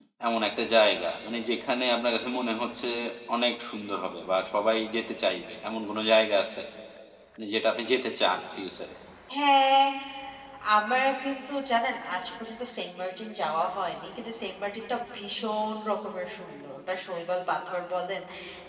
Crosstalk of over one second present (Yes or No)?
No